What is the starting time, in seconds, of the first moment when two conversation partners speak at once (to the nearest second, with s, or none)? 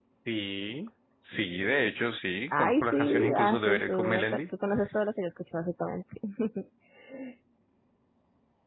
3 s